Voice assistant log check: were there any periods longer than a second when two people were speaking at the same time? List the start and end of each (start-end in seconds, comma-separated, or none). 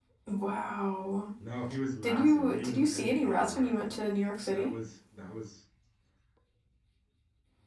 2.0-3.8